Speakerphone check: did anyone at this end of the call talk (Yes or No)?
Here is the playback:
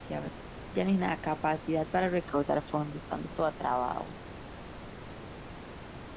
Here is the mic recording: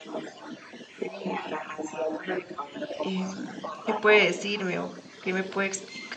Yes